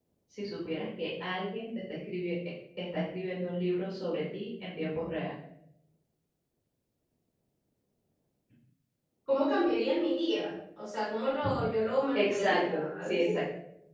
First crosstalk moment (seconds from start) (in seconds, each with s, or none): 12.2 s